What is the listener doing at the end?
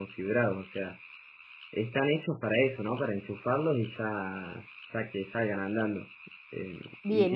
taking over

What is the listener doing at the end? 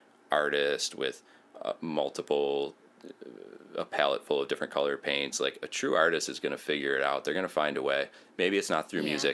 listening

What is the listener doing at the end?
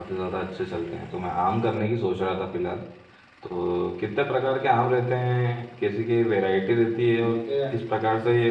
listening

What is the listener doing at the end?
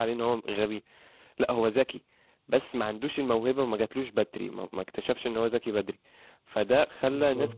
listening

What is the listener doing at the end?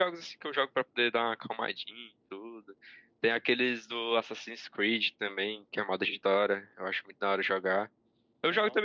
listening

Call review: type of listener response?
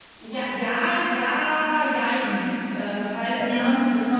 listening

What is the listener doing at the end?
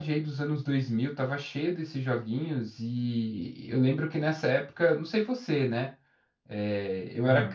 listening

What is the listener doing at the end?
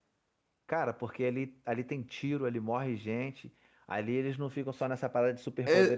taking over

